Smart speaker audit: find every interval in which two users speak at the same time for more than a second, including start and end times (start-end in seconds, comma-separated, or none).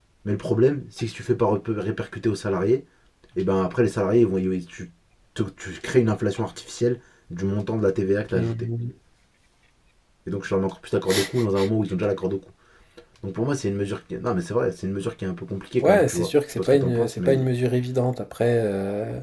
15.8-17.5